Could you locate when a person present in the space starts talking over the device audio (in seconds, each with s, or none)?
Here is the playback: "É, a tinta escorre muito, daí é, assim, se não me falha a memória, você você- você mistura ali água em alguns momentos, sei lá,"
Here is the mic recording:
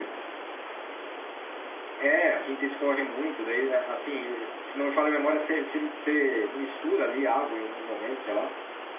none